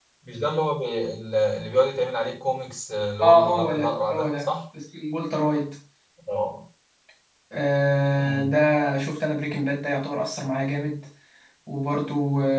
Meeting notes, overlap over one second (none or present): present